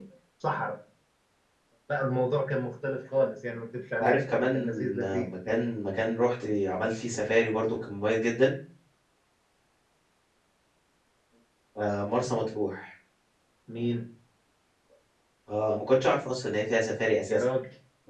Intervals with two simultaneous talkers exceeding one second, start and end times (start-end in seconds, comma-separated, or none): 4.0-5.3